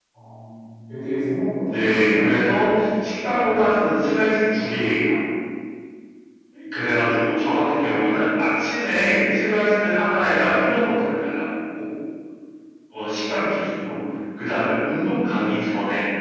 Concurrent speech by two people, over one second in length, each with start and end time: 1.6-2.9

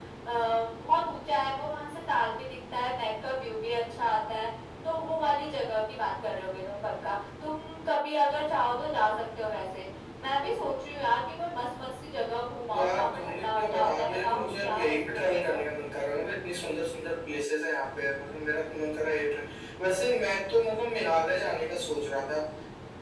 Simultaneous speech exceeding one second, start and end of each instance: 12.7-15.6

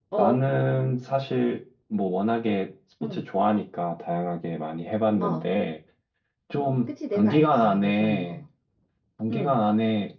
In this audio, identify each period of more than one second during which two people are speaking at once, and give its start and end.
7.1-8.4

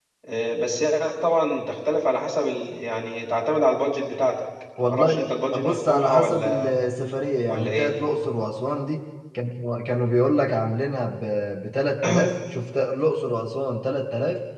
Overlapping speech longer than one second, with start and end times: 5.5-6.7

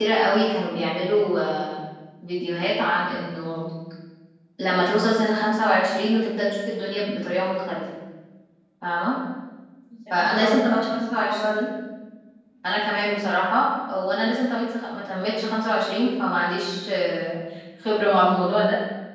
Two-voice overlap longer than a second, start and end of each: 10.1-11.6

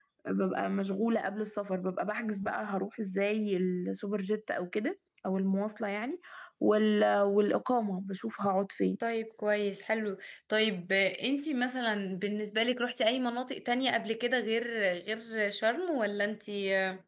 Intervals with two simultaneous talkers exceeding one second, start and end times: none

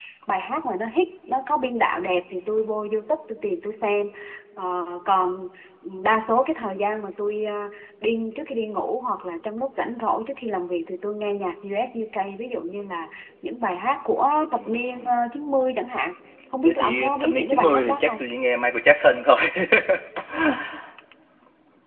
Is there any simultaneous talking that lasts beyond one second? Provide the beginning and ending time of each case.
16.6-18.2

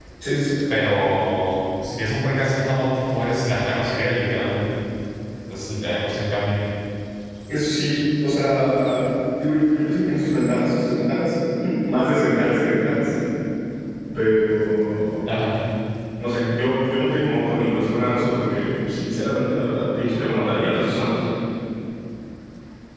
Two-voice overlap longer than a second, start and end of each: none

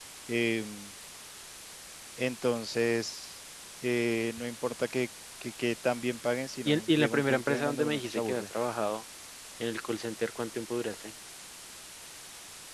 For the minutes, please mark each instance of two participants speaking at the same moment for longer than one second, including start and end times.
6.7-8.5

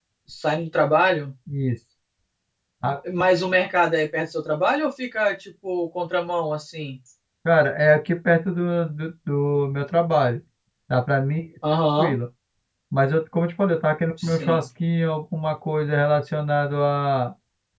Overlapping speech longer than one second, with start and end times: none

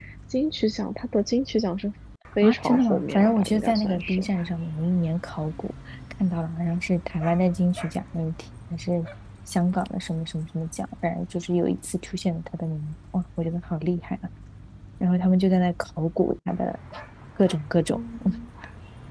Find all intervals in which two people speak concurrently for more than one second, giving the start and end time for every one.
2.4-4.3

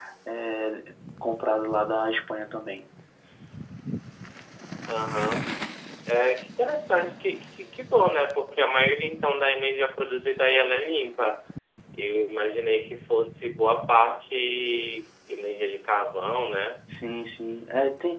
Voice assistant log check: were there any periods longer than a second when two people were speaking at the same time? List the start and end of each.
none

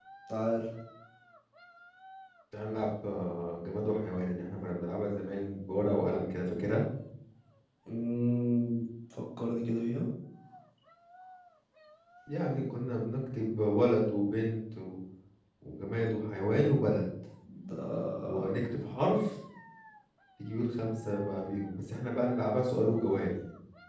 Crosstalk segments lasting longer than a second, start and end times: none

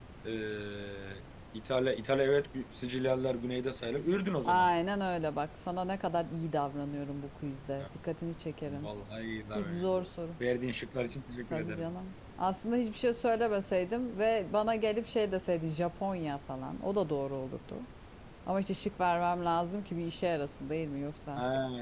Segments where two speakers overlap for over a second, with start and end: none

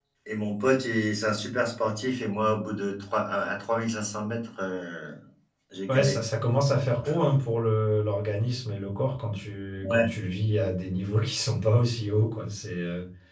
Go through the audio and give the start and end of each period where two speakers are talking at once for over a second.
none

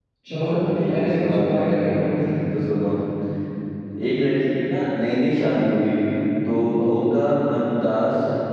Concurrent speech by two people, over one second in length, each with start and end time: 0.9-2.1

